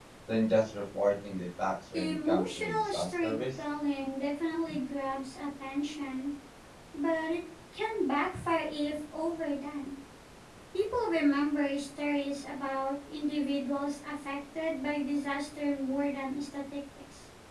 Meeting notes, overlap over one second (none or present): present